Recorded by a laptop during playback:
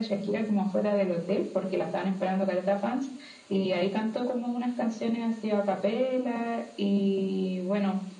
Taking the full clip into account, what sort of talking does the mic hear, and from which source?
echo only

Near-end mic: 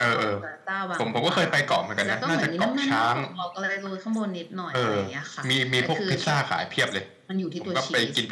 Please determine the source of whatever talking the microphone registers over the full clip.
echo only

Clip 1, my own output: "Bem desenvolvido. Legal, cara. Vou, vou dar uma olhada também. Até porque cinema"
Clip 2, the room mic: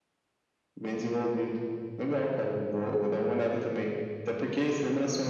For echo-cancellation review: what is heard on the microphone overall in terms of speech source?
echo only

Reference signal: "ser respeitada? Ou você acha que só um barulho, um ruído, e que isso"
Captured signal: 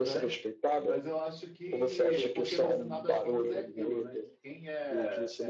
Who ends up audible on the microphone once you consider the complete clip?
both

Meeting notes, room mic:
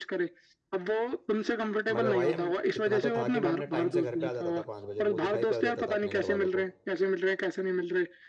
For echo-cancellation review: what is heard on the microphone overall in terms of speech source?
both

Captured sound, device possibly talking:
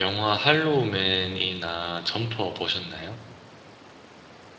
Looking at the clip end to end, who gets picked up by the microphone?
user only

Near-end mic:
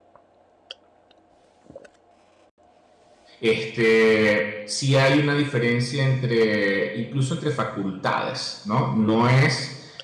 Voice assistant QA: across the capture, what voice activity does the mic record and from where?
user only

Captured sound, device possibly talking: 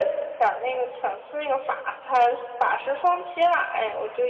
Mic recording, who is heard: echo only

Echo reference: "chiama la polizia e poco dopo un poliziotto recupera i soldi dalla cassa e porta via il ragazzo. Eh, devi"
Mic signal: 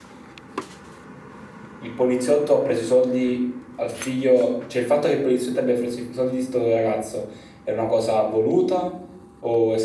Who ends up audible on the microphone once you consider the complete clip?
user only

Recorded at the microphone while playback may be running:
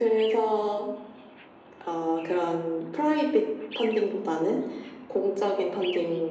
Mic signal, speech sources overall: echo only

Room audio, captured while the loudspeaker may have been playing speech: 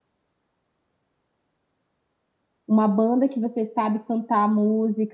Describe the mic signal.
user only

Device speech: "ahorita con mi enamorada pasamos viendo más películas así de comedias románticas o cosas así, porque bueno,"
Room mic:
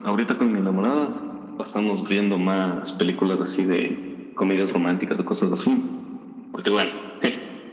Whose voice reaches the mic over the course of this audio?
echo only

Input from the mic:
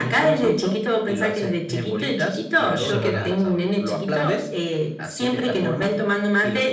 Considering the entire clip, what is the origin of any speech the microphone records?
both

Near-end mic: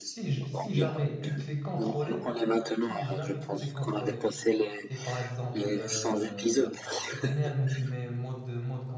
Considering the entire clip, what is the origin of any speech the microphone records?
both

